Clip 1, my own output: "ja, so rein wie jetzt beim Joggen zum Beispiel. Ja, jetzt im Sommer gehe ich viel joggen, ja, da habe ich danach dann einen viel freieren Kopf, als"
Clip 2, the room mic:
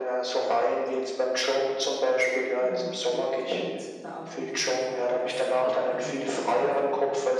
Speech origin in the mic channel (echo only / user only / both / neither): both